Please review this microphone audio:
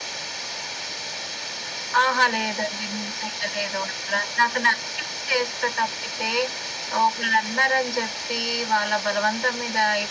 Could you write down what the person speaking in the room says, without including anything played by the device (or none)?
none